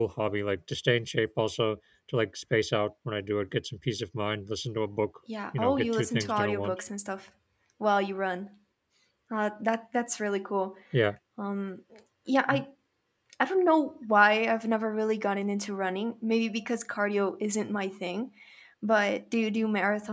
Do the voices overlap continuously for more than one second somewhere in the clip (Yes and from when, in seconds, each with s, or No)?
Yes, from 5.5 s